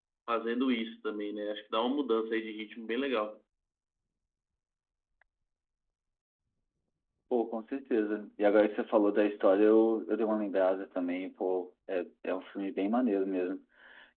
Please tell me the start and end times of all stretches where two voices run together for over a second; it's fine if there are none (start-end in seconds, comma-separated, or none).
none